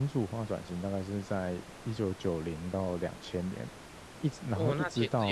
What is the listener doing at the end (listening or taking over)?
taking over